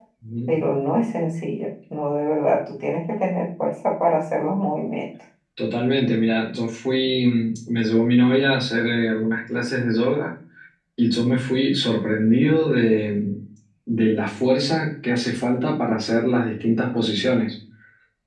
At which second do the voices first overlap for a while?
none

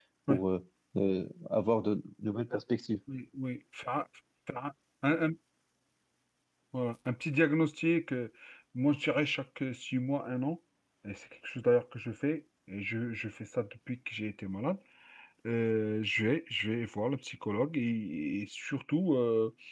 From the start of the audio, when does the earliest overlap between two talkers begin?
none

